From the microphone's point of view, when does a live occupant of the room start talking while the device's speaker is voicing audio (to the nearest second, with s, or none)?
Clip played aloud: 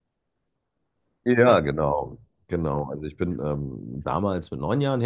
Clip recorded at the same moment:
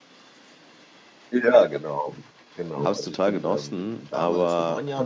3 s